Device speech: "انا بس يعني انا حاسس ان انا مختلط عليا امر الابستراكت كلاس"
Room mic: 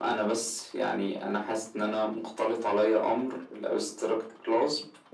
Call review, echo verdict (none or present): present